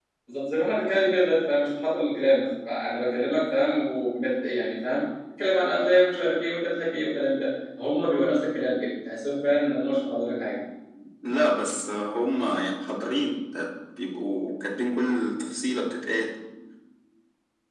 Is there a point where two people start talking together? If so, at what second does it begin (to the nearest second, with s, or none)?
none